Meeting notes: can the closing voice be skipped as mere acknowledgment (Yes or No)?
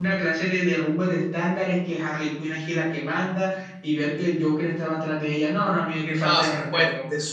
No